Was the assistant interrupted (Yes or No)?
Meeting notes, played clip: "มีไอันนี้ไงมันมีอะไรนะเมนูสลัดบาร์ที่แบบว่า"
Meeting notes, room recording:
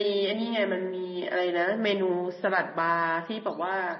No